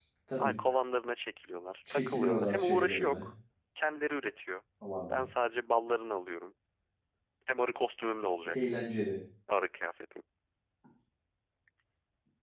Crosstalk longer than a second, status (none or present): present